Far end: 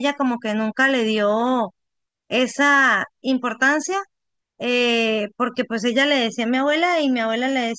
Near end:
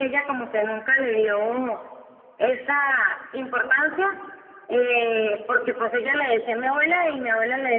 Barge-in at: none

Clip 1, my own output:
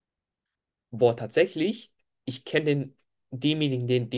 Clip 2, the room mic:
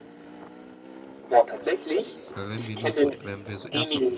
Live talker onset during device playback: 2 s

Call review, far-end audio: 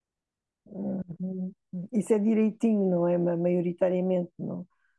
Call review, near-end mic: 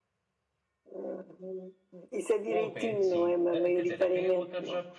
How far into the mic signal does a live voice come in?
2 s

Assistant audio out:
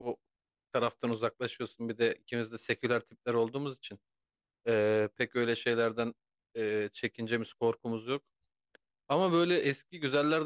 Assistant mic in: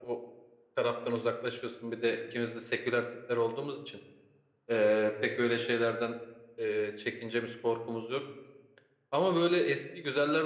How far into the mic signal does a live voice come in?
none

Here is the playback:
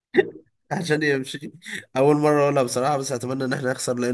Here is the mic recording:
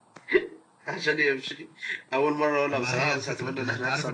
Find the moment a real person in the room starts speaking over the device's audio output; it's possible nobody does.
3 s

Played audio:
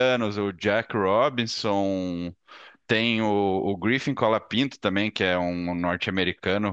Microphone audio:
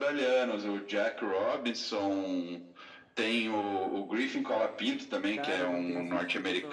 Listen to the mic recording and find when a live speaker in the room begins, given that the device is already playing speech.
5 s

